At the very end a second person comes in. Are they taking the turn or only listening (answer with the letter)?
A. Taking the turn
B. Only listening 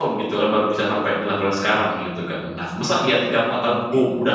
B